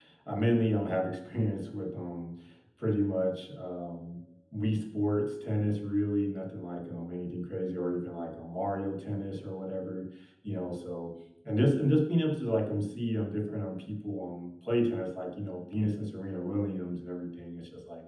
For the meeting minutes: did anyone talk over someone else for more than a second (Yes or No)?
No